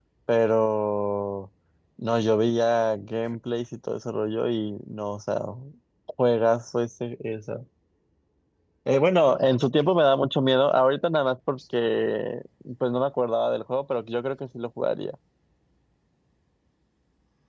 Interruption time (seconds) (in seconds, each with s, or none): none